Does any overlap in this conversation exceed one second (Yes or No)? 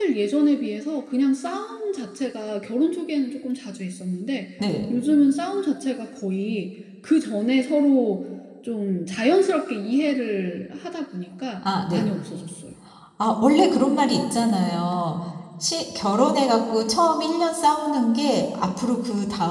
No